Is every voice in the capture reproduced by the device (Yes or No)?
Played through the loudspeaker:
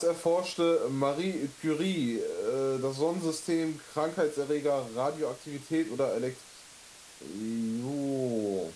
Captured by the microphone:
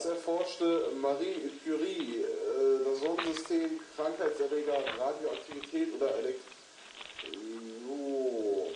Yes